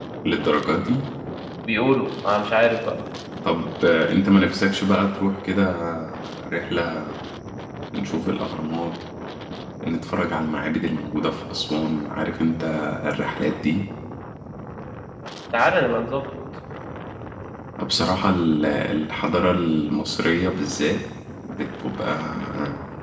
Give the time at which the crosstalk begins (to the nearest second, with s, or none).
none